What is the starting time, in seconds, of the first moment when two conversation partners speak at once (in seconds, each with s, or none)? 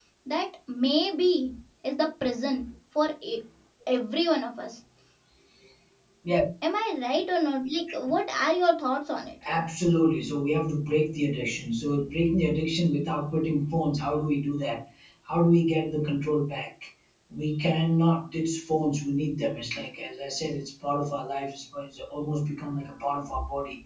none